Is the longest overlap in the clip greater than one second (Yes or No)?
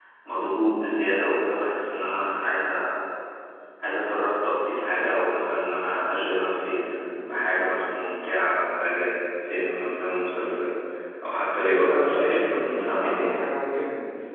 Yes